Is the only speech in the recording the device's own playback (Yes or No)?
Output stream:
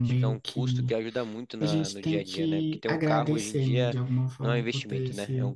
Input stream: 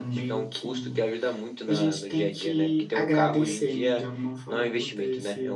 Yes